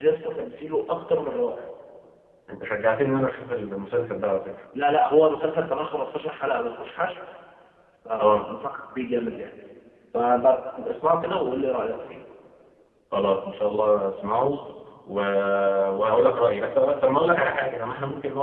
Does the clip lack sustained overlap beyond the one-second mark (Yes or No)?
Yes